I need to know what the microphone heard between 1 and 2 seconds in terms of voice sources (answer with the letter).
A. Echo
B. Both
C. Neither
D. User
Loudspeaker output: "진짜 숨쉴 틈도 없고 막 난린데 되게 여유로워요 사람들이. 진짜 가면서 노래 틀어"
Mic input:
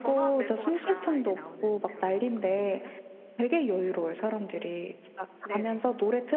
B